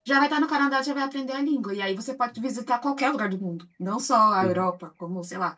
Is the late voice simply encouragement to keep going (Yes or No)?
Yes